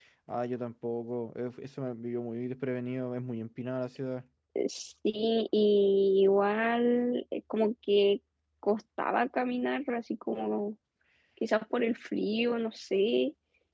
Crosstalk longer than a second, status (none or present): none